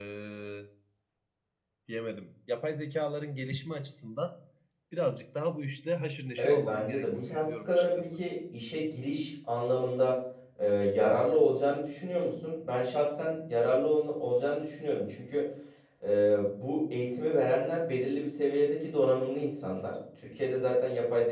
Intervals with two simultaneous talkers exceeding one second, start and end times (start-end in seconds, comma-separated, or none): 6.4-8.0